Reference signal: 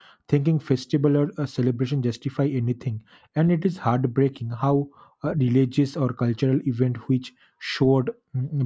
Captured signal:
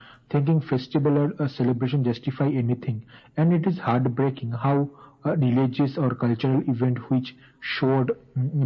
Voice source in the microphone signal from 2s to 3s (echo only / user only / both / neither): echo only